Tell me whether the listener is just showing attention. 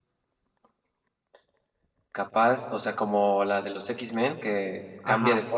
No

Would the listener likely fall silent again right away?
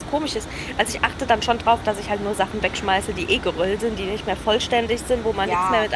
No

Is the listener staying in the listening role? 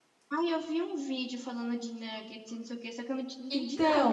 No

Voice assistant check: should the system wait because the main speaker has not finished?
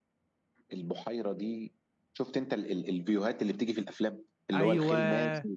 Yes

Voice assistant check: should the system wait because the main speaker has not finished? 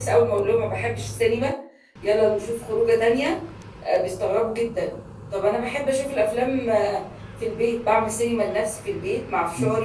Yes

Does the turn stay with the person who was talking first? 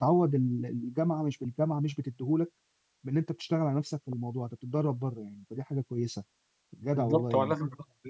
No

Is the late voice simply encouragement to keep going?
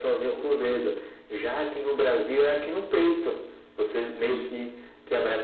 Yes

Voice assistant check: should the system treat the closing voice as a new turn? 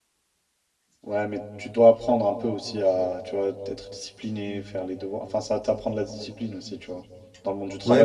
Yes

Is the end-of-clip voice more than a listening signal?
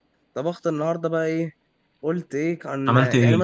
No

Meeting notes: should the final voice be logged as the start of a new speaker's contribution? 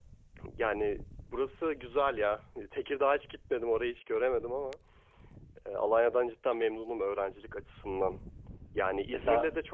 No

